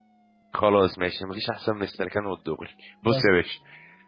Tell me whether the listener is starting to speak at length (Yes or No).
No